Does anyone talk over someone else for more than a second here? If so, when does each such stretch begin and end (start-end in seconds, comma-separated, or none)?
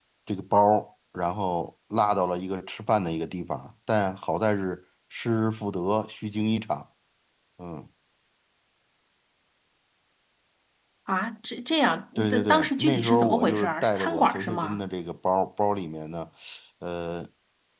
12.2-14.8